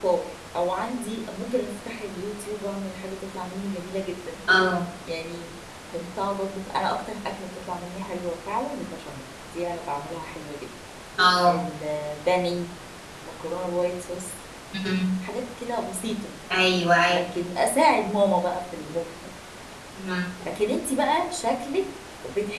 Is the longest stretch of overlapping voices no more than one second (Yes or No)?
Yes